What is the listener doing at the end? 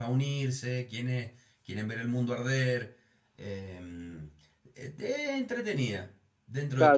taking over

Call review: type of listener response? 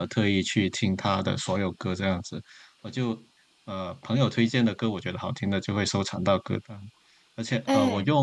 listening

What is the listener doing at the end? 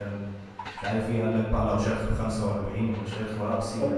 taking over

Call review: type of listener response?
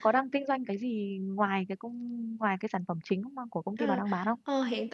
taking over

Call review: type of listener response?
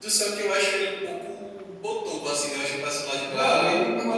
taking over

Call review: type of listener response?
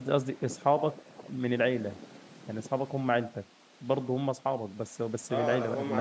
taking over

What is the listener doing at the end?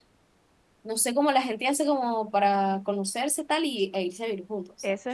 taking over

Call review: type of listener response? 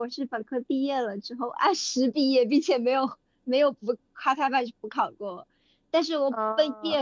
listening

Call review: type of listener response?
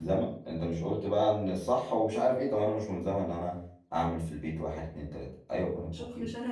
taking over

